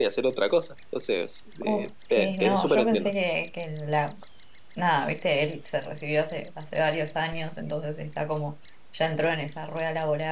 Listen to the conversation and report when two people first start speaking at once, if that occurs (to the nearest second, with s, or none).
2 s